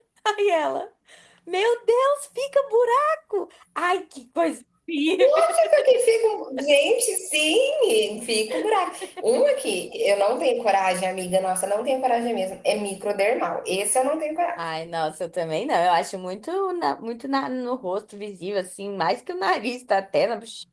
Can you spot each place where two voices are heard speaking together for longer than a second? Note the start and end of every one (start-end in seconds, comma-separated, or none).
none